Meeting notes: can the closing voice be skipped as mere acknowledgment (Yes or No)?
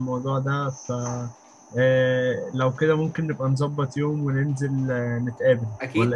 No